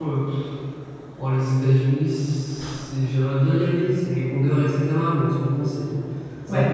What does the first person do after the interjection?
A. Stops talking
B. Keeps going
B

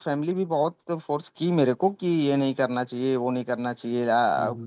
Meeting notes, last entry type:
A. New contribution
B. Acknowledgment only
B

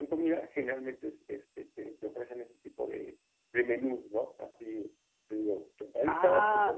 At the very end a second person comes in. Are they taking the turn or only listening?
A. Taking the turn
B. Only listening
A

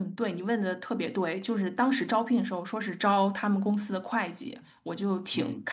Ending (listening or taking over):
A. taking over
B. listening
B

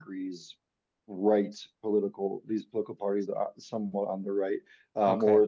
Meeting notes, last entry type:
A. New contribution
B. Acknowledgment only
B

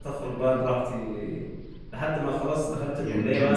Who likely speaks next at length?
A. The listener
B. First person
B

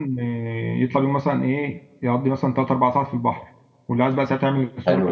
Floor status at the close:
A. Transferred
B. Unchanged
A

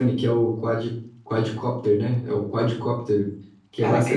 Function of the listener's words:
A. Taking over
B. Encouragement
B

